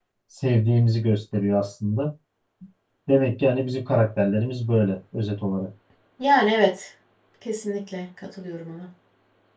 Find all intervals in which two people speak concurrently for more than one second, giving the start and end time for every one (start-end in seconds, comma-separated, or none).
none